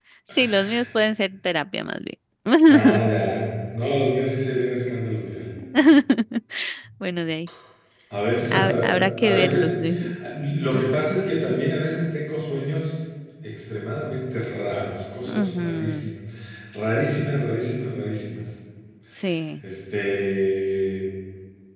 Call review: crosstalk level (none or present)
present